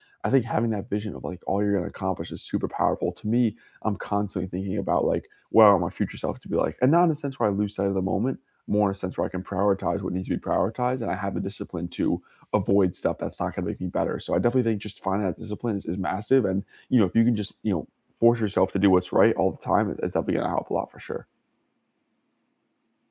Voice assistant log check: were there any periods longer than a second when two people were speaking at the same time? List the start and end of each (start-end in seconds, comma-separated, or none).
none